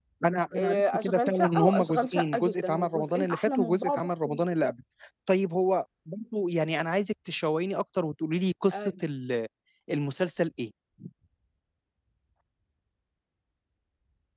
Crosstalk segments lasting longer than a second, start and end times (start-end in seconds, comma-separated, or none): 0.6-4.4